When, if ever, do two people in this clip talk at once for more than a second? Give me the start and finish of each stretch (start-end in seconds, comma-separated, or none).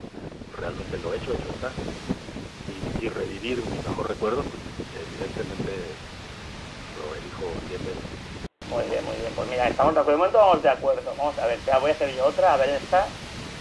none